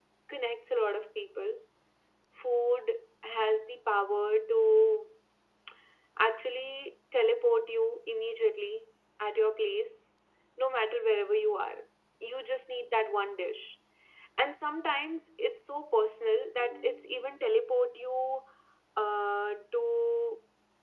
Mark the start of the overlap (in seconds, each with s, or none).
none